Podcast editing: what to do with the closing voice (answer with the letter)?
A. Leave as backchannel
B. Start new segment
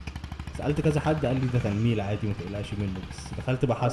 A